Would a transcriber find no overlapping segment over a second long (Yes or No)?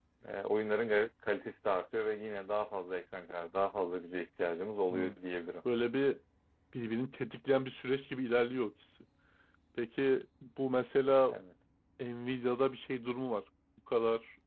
Yes